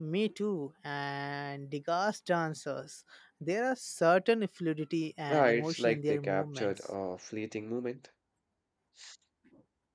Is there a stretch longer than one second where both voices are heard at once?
Yes, from 5.3 s

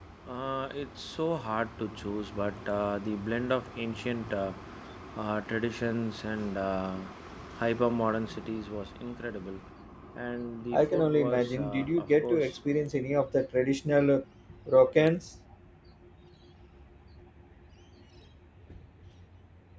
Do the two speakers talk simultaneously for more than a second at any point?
Yes, from 10.7 s

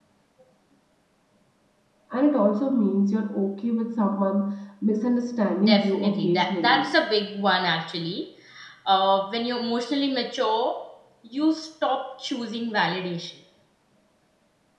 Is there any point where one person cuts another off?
Yes, from 5.6 s

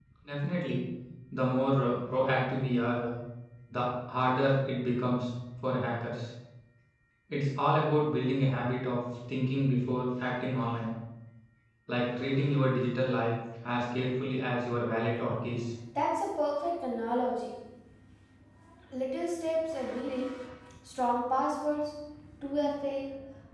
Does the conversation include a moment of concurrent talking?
No

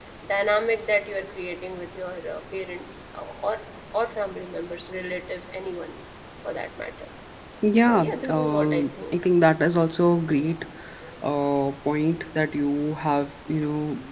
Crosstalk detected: Yes, from 7.8 s

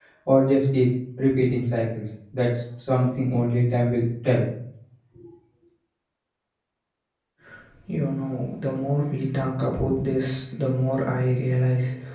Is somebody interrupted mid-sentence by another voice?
No

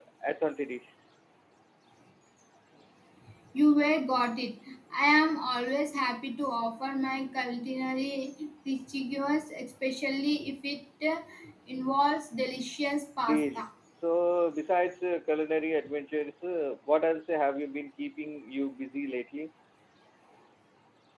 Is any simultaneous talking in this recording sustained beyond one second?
No

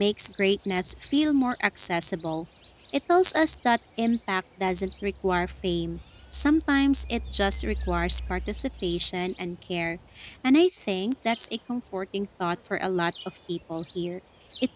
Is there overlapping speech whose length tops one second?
No

